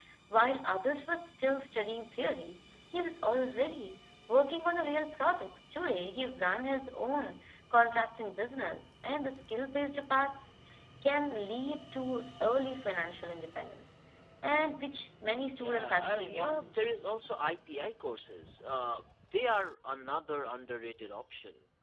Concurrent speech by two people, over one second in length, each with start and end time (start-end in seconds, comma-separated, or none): 15.6-16.9